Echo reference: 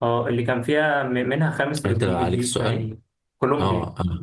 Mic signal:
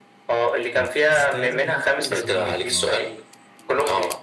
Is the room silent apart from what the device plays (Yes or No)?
No